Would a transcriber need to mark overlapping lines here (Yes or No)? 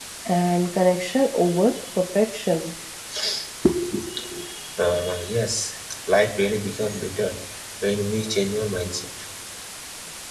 No